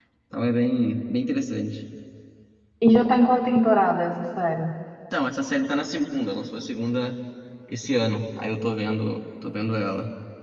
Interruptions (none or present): none